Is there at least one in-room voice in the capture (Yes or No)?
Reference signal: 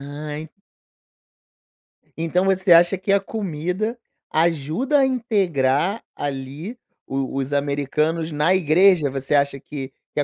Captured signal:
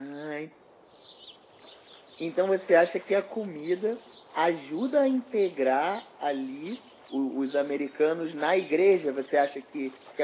No